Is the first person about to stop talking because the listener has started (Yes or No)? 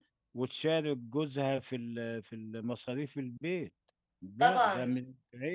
Yes